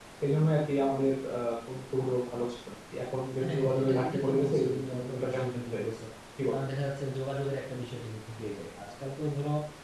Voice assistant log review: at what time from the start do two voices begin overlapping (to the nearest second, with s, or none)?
3 s